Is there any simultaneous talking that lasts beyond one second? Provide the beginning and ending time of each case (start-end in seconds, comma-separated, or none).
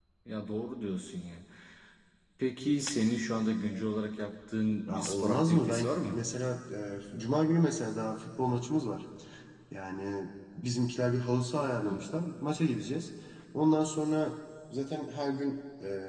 4.9-6.2